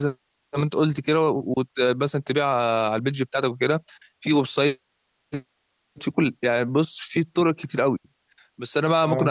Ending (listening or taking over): listening